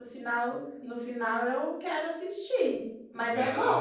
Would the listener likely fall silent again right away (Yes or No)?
No